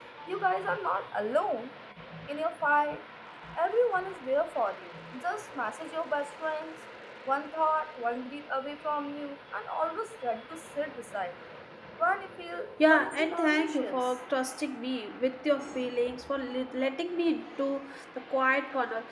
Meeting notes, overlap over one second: present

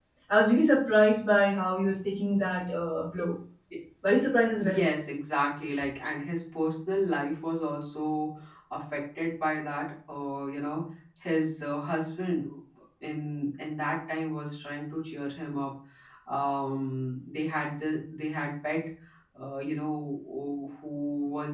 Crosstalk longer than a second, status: none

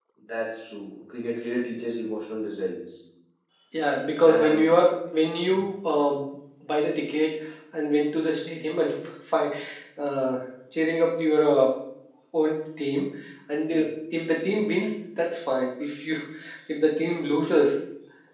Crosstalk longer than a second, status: none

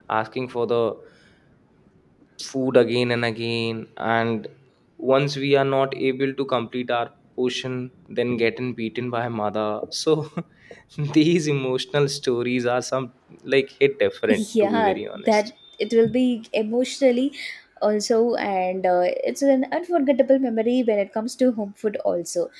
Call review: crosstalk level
present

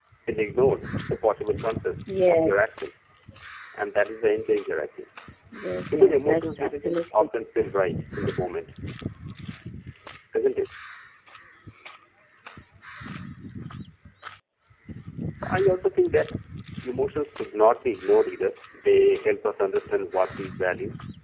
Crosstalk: present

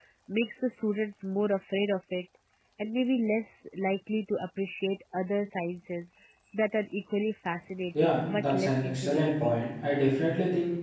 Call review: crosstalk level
present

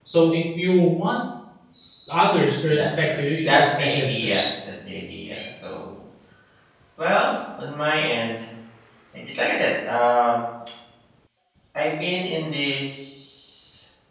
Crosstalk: present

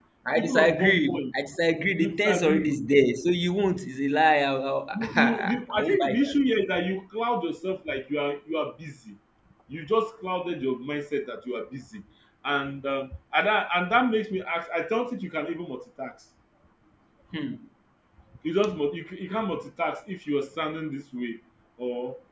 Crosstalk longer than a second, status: present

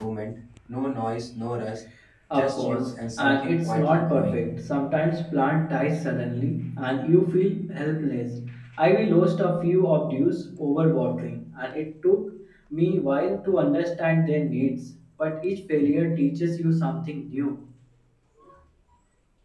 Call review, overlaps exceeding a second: present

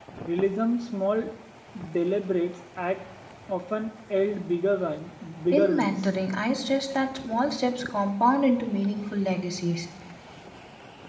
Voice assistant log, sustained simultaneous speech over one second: none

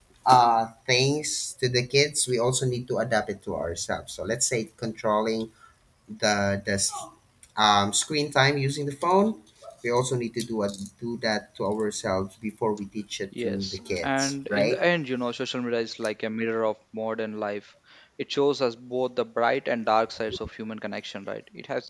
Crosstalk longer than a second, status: present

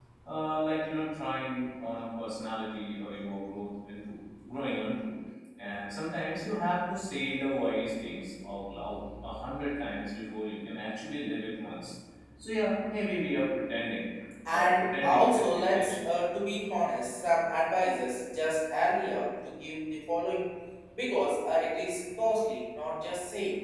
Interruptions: present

